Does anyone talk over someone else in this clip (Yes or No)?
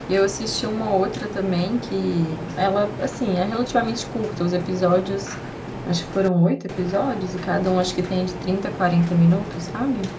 No